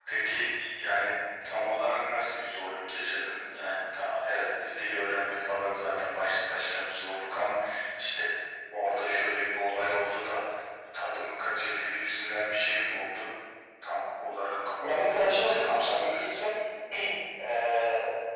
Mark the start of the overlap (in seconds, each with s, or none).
14.8 s